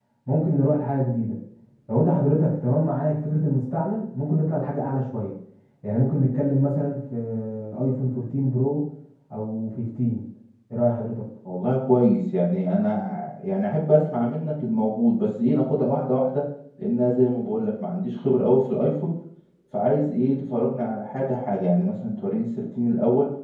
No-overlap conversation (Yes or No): Yes